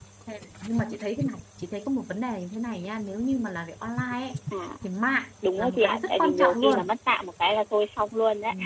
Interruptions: present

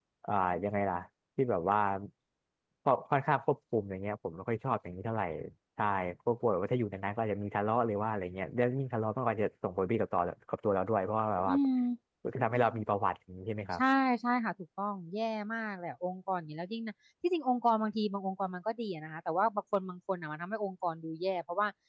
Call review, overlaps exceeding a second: none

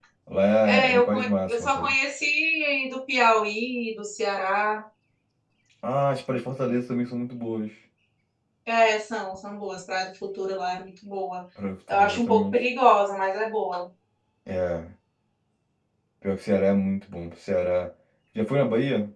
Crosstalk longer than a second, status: present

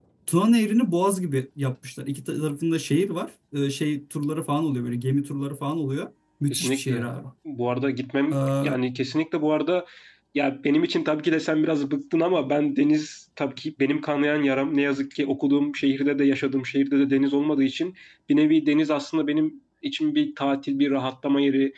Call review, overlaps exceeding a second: none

